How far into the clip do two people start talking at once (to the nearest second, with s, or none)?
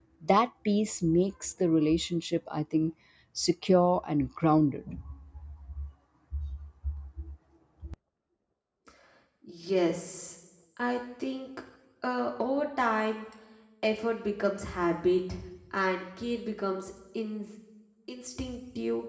none